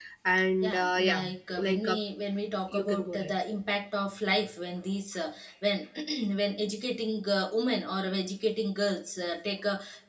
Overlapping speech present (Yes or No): Yes